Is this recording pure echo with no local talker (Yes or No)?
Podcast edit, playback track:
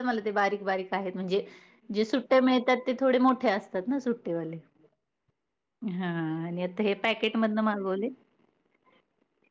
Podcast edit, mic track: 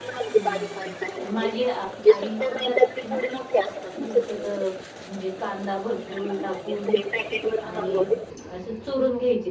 No